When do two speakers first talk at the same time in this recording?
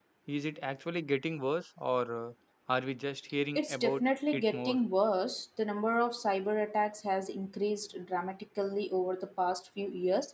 3.5 s

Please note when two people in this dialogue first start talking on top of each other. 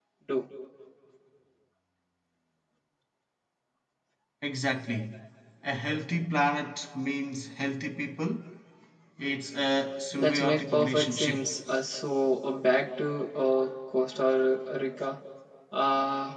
10.2 s

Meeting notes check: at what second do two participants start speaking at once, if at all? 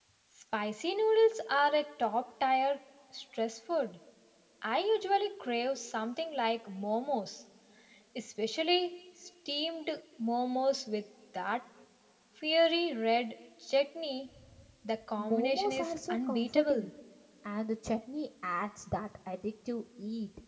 15.2 s

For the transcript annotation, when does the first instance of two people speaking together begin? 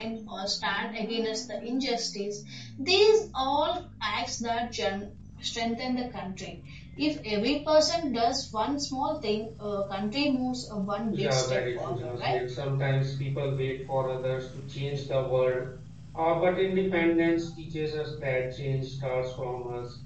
11.1 s

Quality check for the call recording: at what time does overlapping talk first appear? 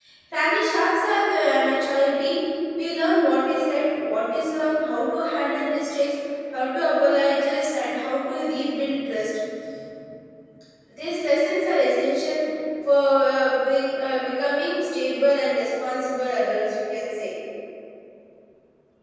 none

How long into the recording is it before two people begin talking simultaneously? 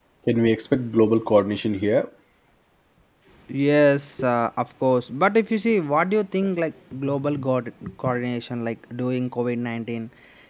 none

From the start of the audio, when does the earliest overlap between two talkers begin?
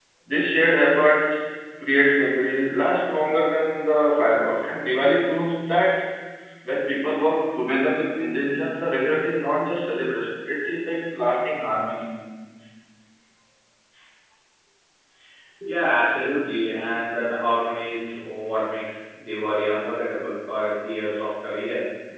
none

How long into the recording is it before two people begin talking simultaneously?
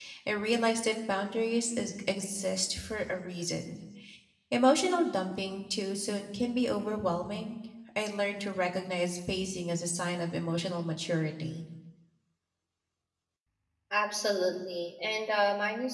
none

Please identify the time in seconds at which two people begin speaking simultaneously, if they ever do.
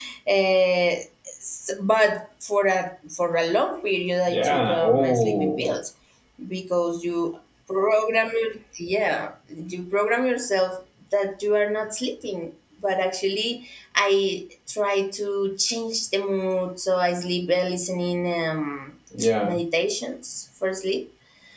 4.3 s

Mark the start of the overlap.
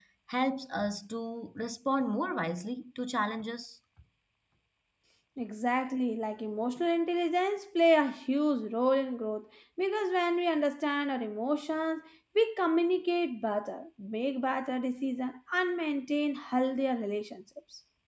none

